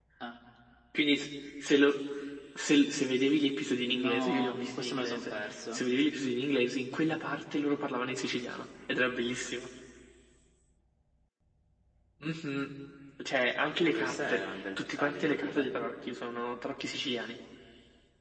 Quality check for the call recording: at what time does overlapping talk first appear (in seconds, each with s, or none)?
3.8 s